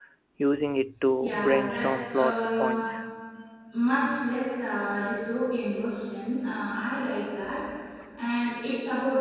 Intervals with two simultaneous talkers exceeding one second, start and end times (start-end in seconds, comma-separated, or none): 1.2-2.9